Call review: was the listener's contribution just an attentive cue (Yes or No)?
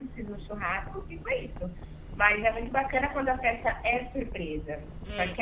Yes